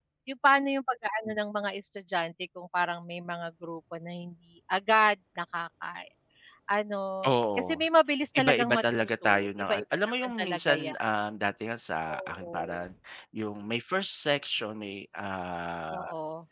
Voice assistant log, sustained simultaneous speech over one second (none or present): present